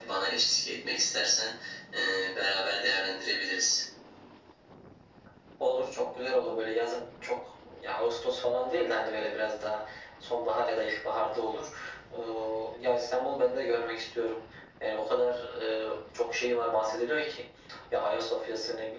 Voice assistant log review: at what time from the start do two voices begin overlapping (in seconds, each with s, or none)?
none